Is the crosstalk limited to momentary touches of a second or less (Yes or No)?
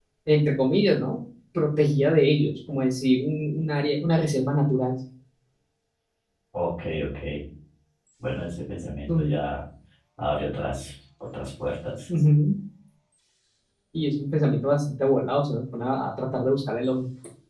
Yes